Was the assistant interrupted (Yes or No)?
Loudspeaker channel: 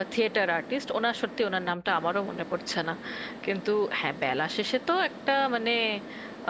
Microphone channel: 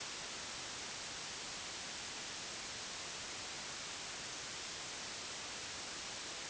No